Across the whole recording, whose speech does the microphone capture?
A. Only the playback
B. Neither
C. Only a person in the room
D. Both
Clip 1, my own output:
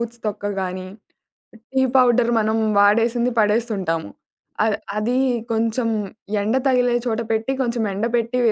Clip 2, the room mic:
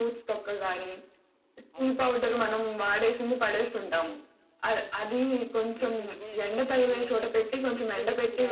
D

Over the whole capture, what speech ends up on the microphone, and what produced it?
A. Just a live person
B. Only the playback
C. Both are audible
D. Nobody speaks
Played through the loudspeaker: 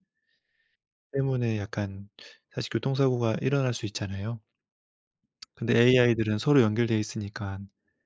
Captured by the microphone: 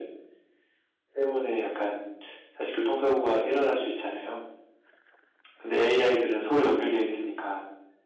B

